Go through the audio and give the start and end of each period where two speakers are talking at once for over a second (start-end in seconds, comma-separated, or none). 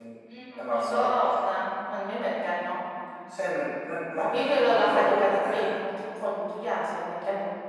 4.2-5.6